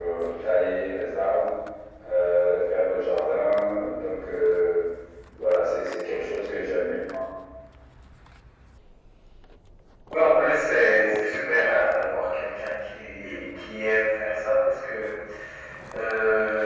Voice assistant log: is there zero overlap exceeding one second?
Yes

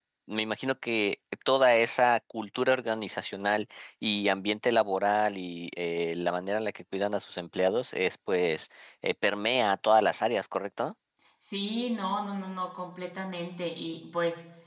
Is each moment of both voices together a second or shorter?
Yes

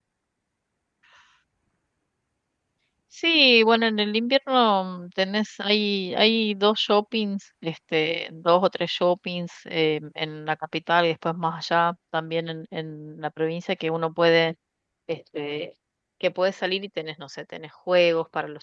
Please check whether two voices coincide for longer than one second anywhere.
No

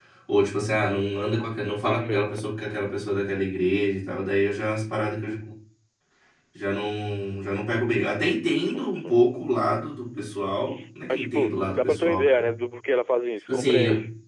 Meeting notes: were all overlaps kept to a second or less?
No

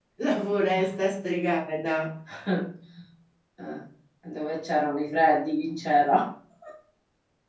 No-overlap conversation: Yes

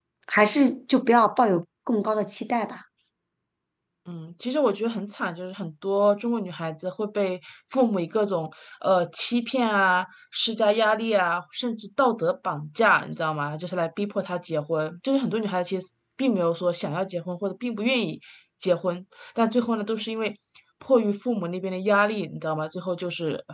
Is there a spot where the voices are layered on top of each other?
No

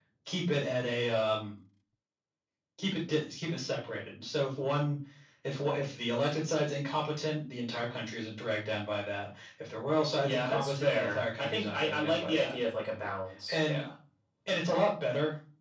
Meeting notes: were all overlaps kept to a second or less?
No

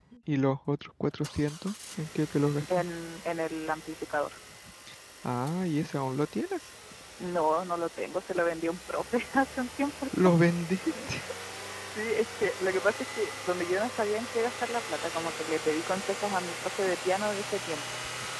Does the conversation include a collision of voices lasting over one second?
No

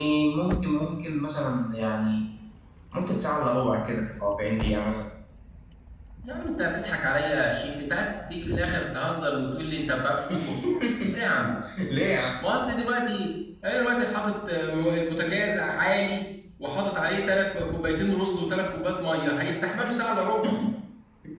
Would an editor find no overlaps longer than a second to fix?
Yes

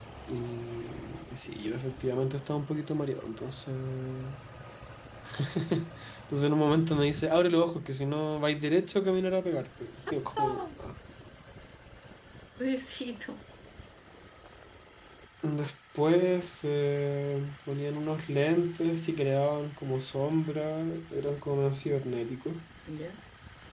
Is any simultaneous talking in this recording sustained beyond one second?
No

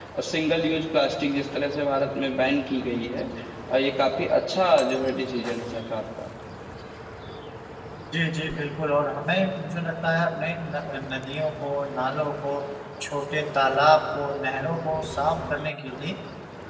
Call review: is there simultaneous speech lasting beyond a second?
No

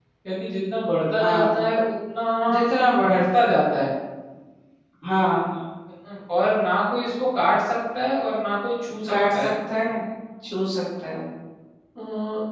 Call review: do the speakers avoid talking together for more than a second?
Yes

